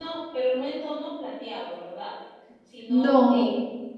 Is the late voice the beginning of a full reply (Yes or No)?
No